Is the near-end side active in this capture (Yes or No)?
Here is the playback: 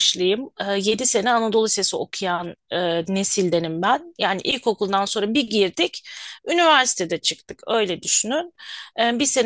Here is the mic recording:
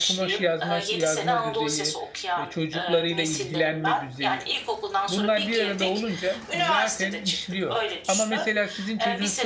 Yes